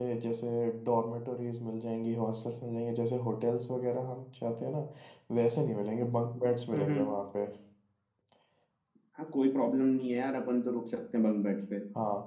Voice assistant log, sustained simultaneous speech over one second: none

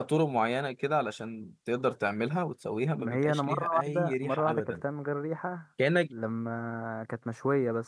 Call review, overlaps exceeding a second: present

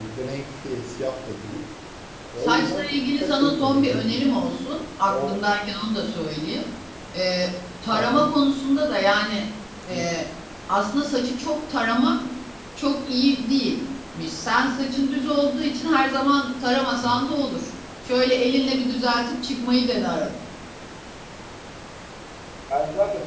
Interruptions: present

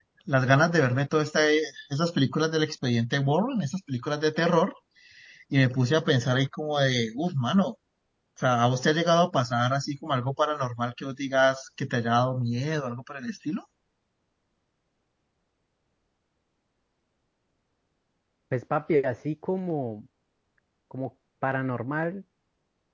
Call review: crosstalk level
none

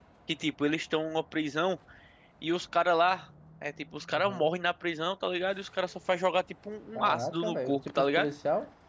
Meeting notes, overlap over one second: present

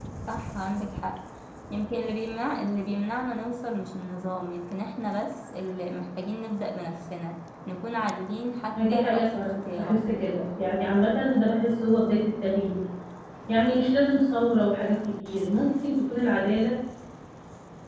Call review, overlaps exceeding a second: present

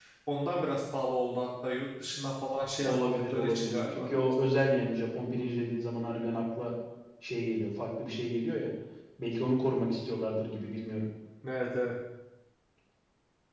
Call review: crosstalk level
present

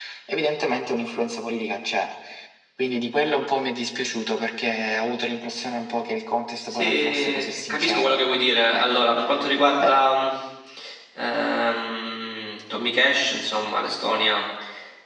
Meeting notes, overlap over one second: present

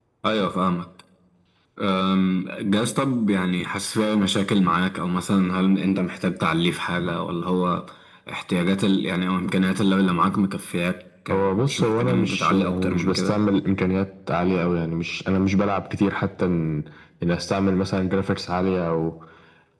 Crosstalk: present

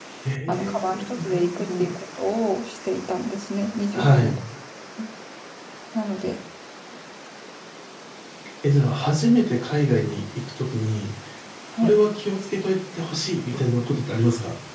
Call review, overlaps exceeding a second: present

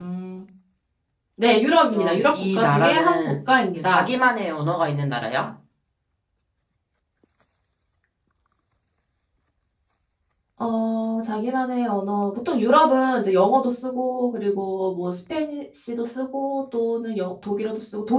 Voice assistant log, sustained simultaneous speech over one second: present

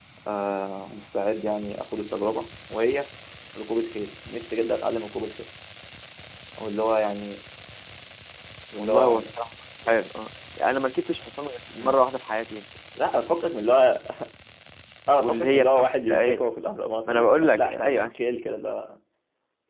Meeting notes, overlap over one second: present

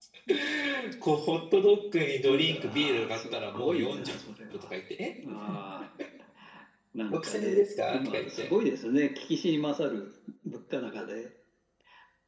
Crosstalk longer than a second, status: present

